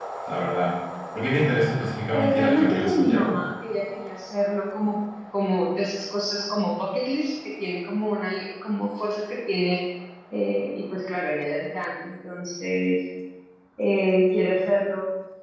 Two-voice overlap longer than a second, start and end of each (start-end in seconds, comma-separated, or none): 2.1-3.4